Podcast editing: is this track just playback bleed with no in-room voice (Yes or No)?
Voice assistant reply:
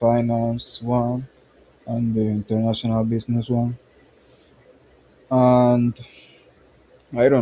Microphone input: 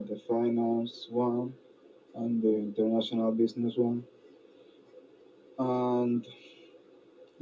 Yes